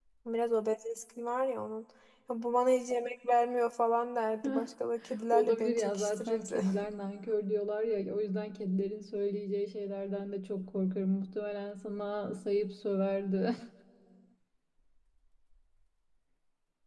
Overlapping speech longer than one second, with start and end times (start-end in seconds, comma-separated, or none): 5.3-6.6